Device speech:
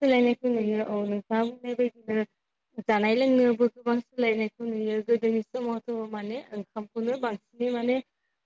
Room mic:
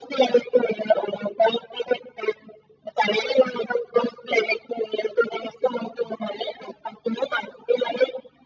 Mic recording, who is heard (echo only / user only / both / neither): echo only